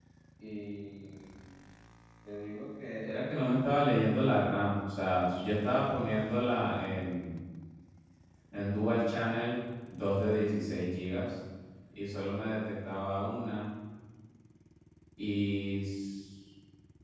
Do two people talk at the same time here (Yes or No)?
No